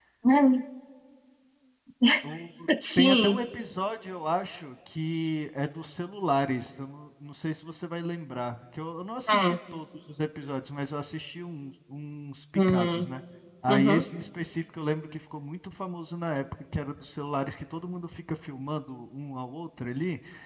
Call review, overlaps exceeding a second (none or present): none